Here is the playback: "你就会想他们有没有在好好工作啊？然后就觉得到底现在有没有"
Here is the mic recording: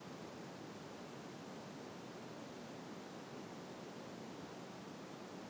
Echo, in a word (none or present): none